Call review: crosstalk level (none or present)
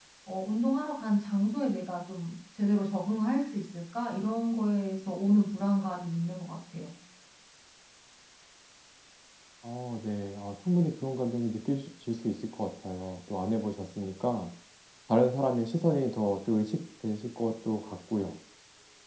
none